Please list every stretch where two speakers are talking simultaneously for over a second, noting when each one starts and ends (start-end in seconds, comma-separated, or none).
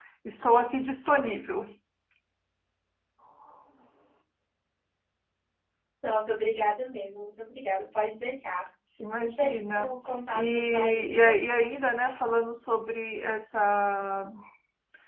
9.2-11.3